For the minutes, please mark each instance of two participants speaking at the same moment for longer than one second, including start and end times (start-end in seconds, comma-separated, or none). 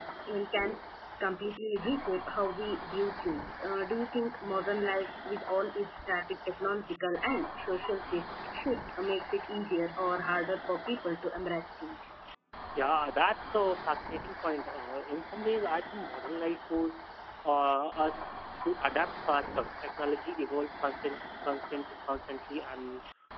none